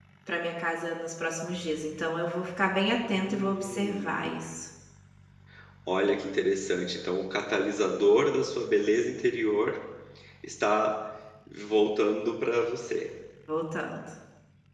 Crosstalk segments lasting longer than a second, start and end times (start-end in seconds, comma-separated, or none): 3.1-4.4